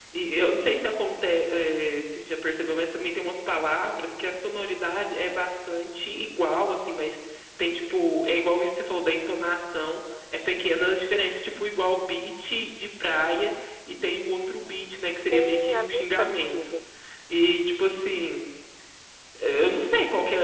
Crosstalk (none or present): present